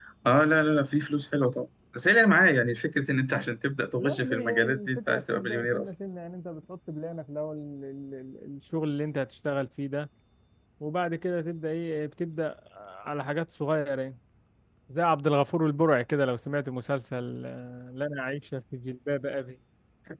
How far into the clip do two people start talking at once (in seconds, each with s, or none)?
4.0 s